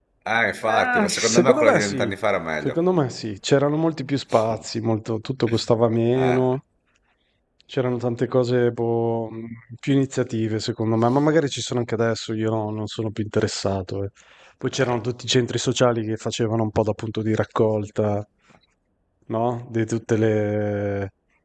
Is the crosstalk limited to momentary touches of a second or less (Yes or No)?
No